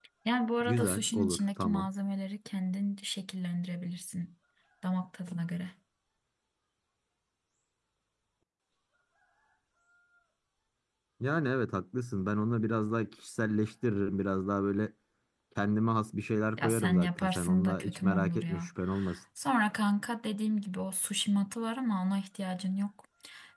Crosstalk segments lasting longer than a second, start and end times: 0.6-1.9, 16.6-18.7

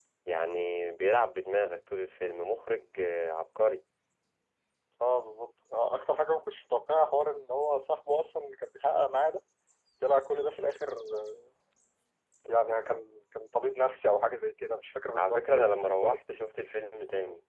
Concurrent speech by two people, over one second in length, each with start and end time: 15.2-16.4

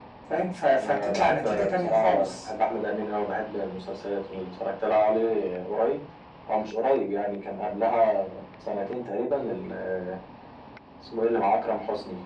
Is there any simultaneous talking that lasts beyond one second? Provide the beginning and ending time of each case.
0.8-2.5

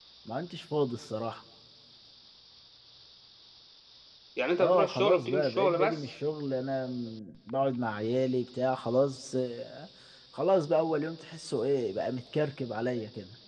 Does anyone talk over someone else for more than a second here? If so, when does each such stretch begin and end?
4.6-6.1

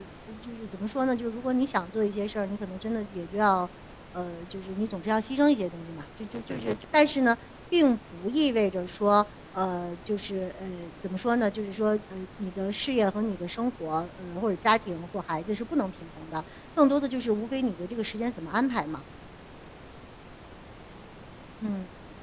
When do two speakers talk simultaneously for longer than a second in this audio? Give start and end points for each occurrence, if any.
none

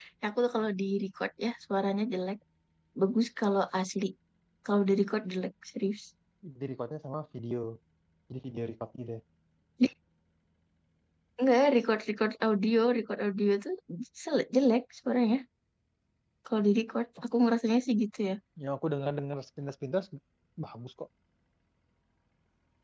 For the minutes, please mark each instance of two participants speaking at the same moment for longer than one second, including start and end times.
none

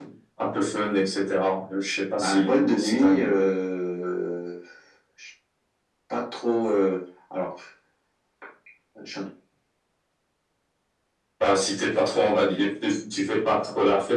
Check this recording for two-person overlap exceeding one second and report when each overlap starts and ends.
2.2-3.5

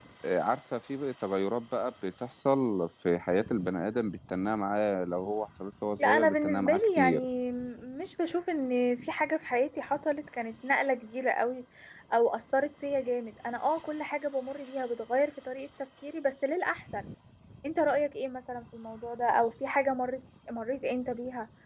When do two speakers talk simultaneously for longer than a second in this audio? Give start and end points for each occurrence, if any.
6.0-7.2

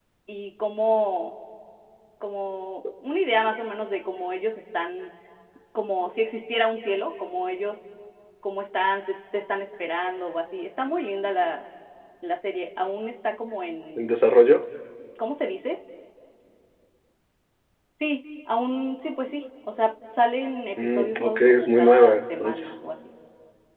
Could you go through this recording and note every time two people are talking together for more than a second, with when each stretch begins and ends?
20.8-22.8

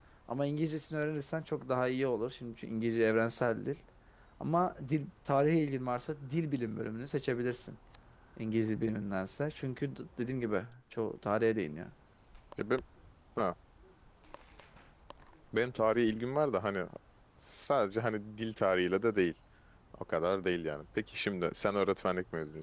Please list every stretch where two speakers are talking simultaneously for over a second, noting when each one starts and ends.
none

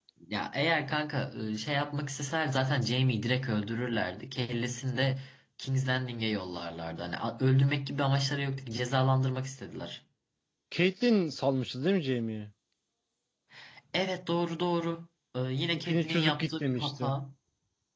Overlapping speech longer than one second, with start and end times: 15.7-17.1

